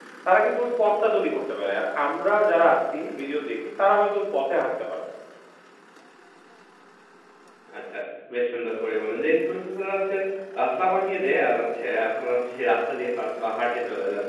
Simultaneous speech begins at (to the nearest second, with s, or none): none